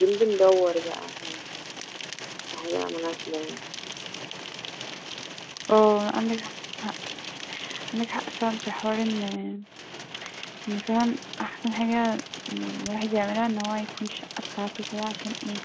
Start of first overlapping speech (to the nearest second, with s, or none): none